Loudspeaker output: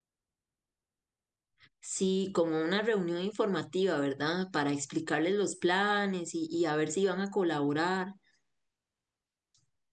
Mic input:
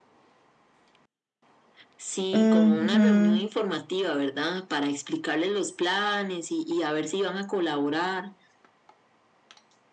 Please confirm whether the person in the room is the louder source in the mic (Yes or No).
Yes